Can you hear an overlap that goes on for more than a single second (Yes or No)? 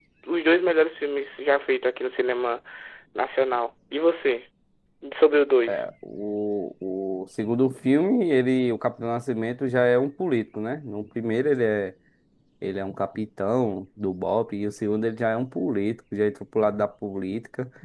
No